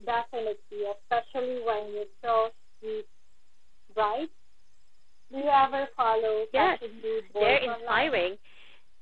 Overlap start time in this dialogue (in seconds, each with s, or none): 6.5 s